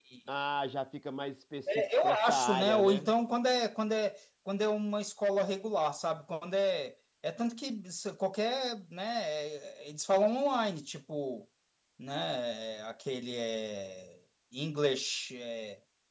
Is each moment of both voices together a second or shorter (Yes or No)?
No